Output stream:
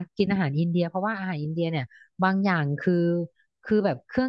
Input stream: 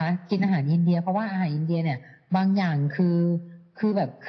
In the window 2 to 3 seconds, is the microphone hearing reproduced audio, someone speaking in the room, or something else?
echo only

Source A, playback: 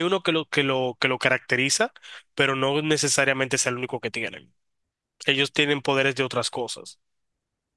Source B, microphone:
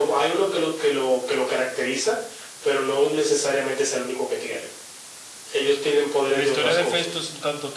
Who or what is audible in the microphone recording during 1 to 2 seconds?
echo only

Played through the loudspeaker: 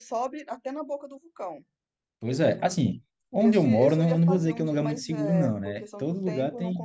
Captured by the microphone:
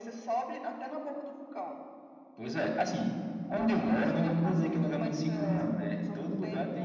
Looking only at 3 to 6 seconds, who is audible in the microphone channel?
echo only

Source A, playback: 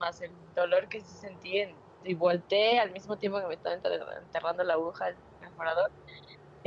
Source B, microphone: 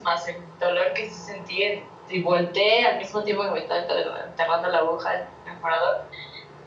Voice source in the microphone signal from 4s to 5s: echo only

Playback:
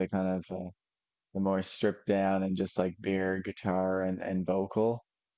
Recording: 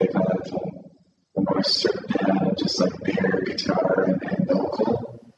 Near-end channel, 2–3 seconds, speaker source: echo only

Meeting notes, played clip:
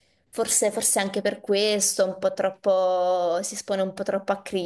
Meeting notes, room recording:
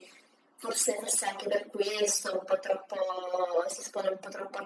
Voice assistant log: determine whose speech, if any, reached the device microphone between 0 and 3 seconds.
echo only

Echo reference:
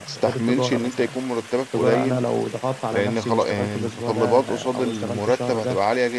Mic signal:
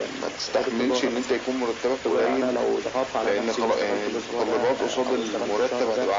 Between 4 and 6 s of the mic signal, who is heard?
echo only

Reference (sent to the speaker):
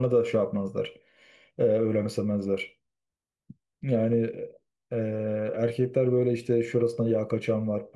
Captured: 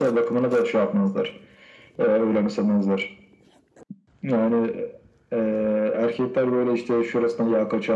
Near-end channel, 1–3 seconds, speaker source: echo only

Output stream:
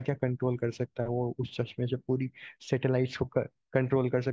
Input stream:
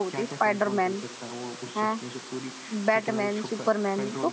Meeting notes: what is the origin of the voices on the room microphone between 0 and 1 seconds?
both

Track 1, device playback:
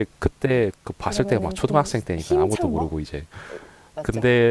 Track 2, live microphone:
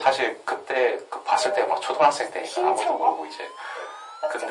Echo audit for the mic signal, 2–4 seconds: echo only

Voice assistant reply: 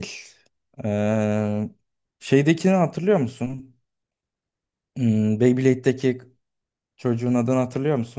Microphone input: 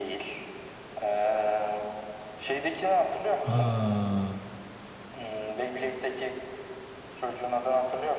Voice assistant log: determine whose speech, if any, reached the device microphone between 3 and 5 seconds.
both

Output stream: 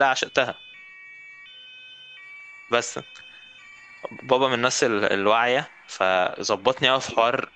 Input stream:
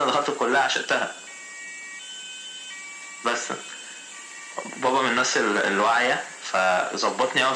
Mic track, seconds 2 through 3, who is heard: neither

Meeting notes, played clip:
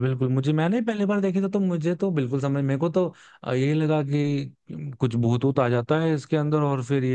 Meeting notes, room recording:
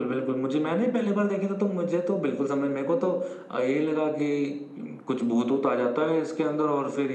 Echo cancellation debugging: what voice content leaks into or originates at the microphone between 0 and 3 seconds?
echo only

